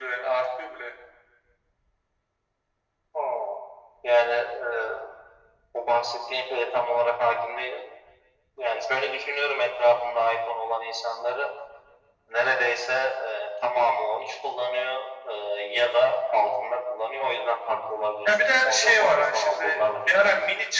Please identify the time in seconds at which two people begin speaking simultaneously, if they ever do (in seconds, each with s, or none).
18.2 s